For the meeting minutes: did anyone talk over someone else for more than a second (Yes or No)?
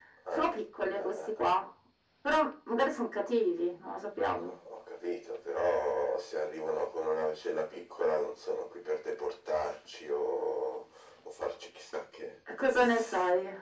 No